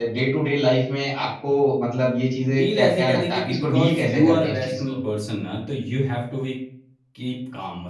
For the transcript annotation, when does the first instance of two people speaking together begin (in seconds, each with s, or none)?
2.5 s